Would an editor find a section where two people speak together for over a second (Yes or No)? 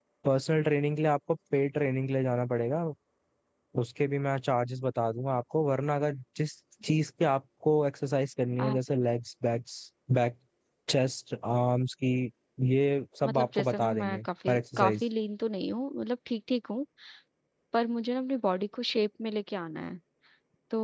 Yes